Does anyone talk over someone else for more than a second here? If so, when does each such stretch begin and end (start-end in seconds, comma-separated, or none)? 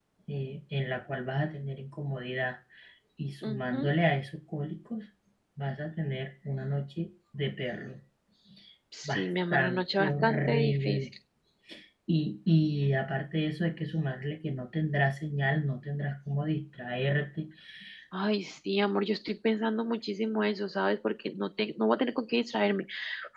9.1-11.1